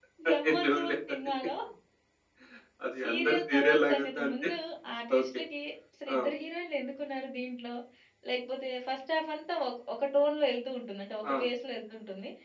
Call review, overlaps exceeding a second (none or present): present